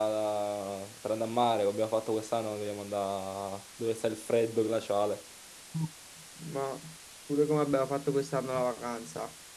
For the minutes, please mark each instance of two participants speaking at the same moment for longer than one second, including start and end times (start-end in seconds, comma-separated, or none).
none